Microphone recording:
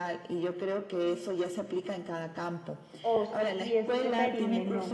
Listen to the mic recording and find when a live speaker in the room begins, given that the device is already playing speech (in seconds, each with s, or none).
3.0 s